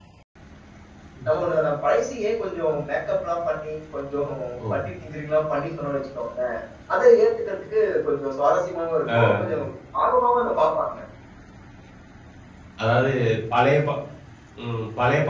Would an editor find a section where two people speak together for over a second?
No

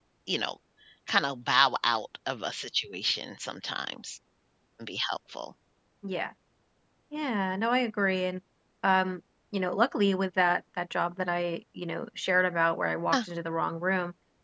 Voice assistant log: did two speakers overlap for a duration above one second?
No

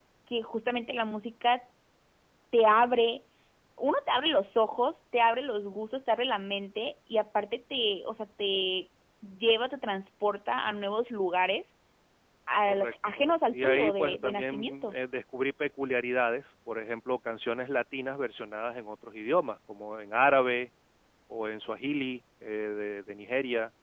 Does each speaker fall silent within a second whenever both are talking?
No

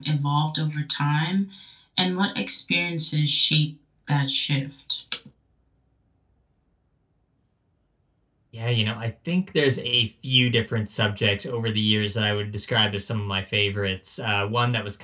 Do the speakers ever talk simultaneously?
No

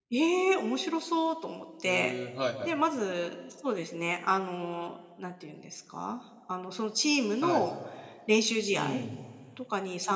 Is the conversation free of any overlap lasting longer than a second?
Yes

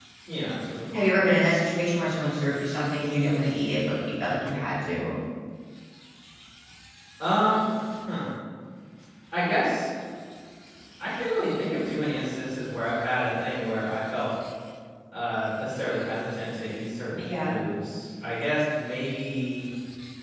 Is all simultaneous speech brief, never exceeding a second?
Yes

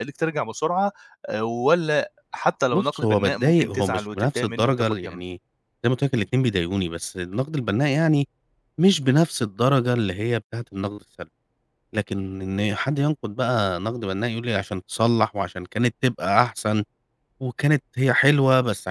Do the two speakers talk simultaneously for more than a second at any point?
Yes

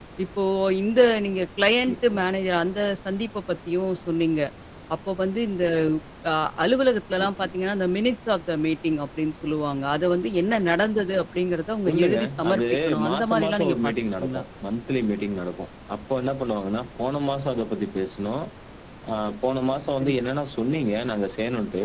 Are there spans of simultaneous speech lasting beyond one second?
Yes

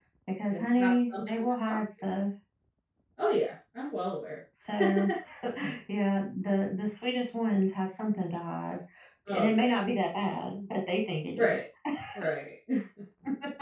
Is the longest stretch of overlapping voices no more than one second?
No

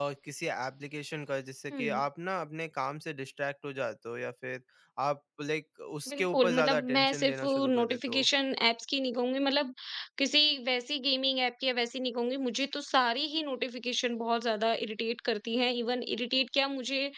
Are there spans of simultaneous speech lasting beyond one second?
Yes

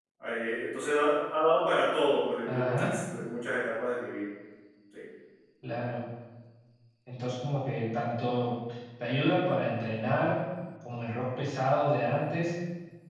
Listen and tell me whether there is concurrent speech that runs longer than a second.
No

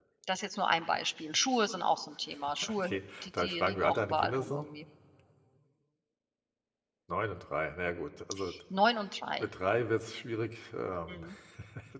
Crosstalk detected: Yes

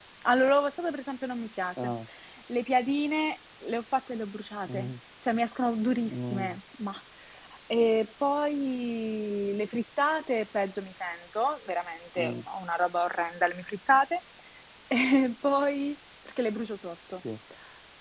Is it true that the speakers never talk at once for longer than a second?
Yes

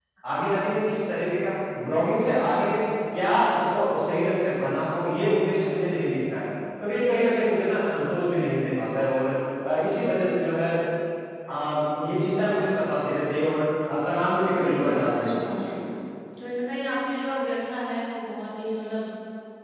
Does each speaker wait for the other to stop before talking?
No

